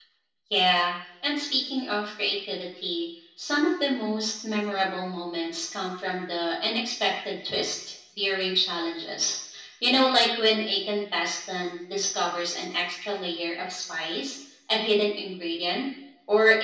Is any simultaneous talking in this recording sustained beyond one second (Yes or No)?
No